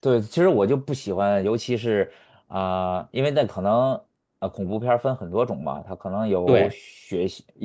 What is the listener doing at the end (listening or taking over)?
listening